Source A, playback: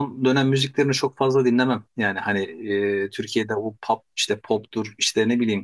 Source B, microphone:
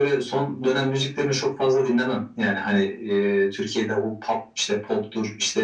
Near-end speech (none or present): none